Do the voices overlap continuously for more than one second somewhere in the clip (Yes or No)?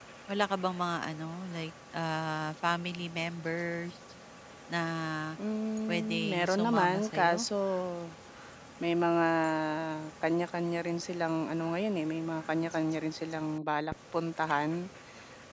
Yes